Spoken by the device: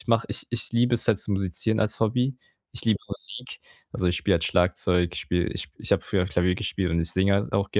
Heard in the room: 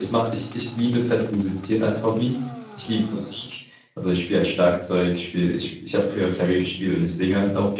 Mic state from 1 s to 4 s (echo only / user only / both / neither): echo only